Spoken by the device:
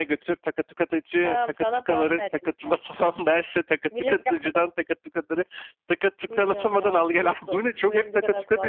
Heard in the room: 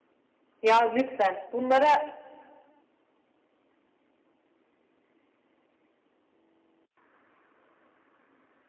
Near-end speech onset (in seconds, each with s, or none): 0.6 s